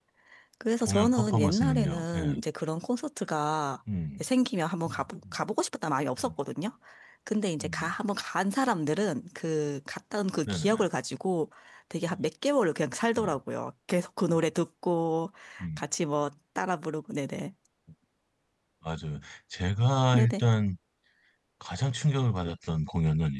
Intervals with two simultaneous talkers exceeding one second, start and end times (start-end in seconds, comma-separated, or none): 0.8-2.4